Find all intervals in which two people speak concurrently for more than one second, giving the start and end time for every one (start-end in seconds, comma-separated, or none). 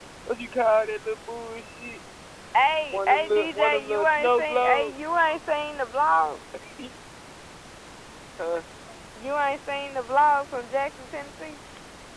2.9-4.9